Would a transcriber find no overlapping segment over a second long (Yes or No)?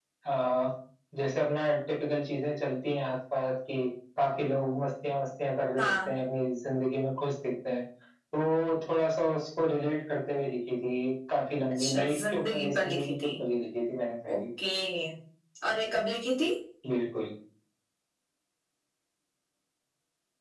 No